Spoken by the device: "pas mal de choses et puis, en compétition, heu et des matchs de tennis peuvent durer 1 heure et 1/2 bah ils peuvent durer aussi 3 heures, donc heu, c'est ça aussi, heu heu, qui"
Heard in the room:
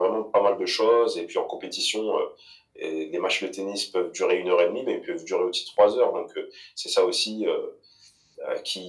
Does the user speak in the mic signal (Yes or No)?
No